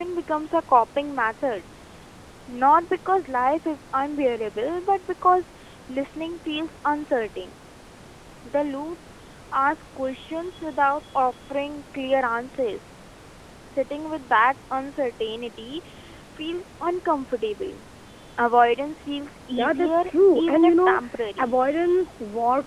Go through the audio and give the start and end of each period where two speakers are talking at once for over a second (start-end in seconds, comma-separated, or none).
19.5-21.0